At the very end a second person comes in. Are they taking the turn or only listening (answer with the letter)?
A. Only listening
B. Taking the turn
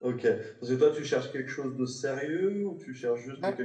A